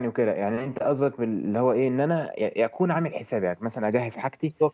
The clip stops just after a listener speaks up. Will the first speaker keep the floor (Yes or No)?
Yes